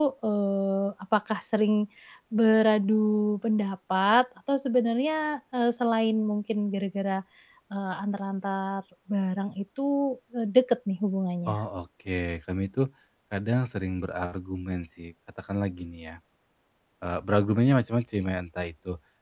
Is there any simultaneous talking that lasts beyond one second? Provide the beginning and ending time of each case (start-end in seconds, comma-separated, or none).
none